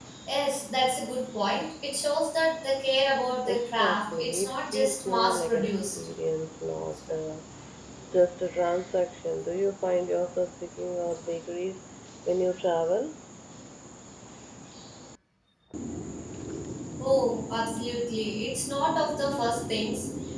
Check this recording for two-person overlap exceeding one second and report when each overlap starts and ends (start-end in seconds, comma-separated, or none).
3.5-6.0